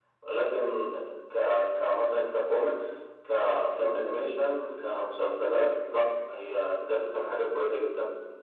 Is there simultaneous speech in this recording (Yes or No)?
No